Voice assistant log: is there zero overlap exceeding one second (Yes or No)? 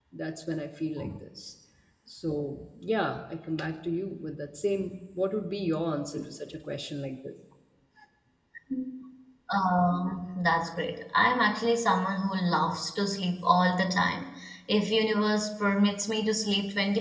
Yes